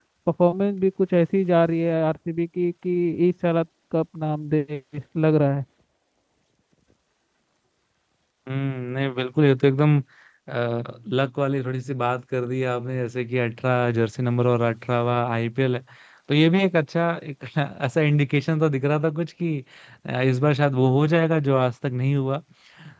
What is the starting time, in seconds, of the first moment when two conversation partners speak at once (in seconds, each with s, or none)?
none